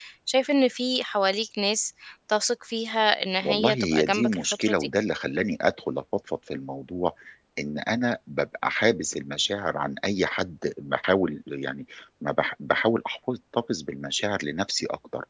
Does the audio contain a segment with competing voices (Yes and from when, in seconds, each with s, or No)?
Yes, from 3.4 s